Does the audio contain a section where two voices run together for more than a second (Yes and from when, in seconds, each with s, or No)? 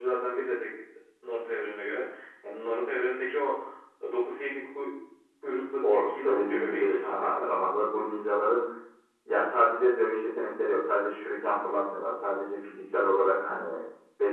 Yes, from 5.8 s